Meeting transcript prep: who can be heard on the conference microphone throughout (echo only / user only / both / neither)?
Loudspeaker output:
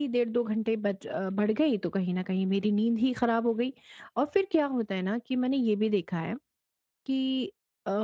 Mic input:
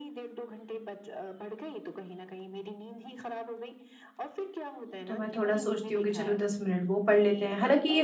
both